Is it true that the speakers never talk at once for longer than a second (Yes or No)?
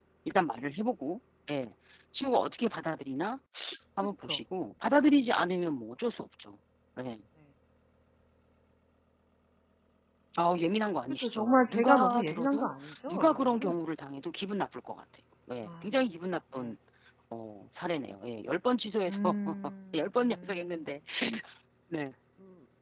No